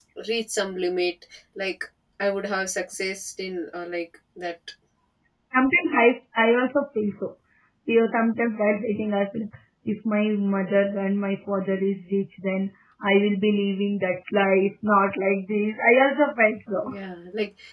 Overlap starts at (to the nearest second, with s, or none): none